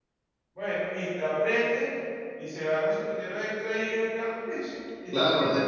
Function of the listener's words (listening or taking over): taking over